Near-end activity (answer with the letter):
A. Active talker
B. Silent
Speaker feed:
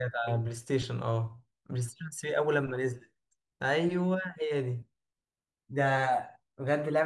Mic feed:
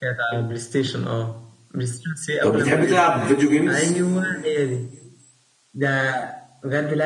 A